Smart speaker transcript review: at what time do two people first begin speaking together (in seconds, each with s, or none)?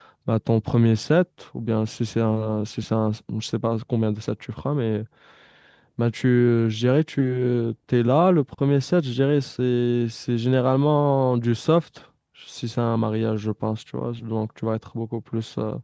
none